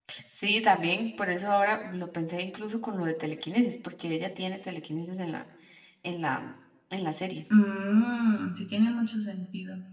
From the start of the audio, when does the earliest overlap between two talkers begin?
none

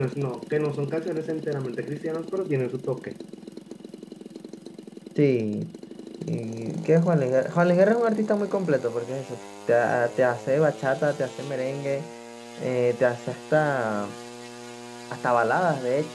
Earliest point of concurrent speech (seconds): none

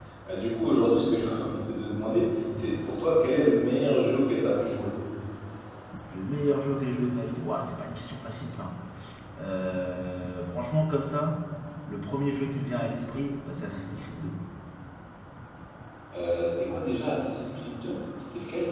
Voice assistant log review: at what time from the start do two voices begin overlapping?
none

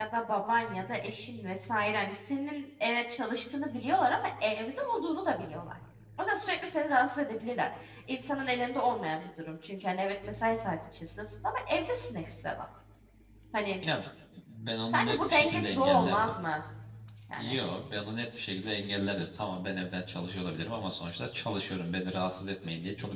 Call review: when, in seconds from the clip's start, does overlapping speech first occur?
14.9 s

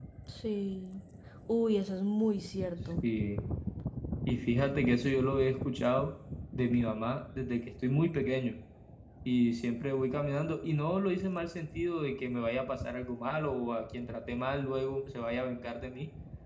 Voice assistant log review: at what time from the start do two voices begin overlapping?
none

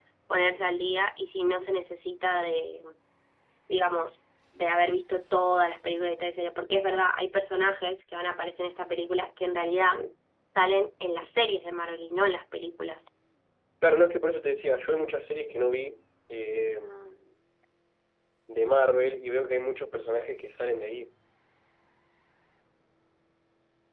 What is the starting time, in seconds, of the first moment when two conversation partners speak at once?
none

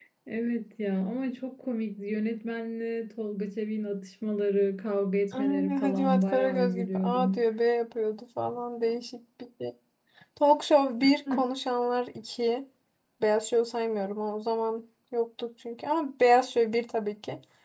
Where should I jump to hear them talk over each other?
5.3 s

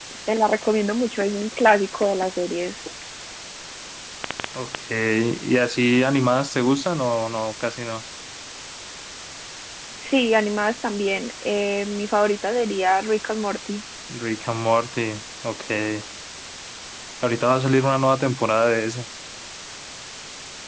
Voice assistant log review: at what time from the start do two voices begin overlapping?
none

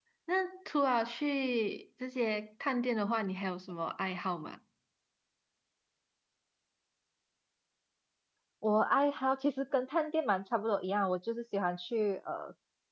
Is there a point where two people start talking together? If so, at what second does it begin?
none

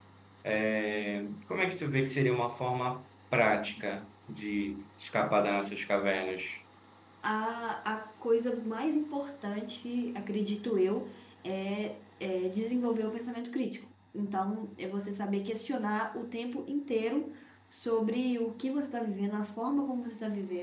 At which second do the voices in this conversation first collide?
none

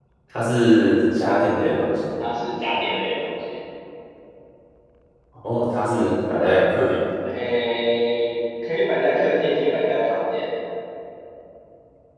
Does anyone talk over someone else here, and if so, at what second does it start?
none

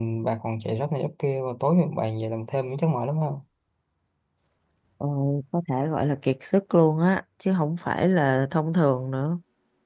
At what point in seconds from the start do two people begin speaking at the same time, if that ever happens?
none

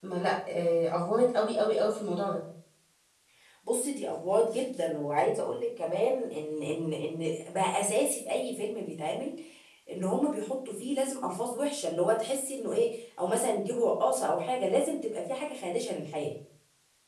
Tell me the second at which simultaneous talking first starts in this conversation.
none

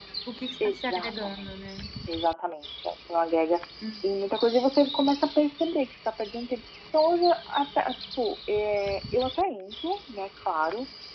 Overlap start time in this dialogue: 0.6 s

